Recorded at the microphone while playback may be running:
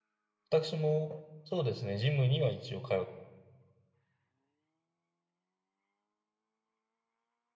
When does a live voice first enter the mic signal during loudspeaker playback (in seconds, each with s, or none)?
0.5 s